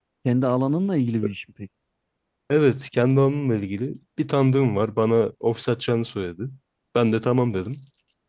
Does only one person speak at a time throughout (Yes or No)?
Yes